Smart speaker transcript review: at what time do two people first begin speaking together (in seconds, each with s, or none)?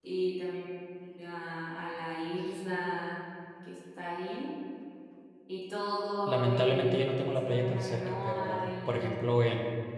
6.3 s